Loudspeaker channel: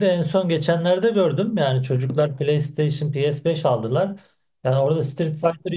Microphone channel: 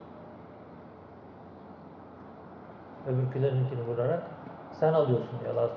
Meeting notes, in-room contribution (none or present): present